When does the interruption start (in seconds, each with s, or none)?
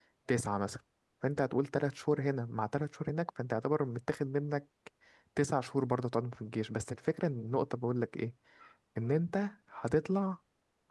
none